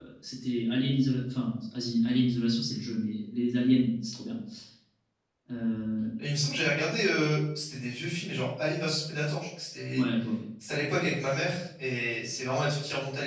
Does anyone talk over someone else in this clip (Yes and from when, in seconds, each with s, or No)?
No